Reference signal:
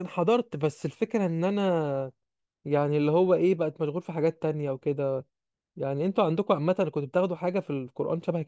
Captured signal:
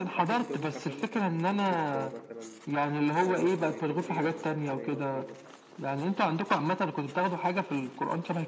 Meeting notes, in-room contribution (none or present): present